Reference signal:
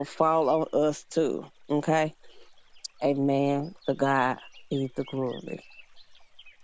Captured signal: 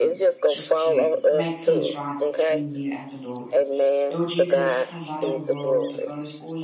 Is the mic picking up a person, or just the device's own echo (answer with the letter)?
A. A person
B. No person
A